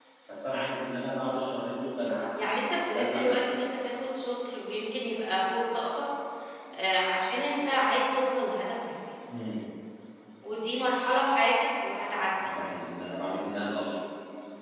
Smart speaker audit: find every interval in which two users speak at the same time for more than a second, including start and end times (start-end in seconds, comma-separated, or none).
2.4-3.7